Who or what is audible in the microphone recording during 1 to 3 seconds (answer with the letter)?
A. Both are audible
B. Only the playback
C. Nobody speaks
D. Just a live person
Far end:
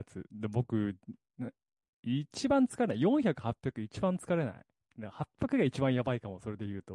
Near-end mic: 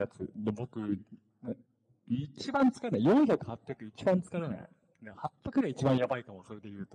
B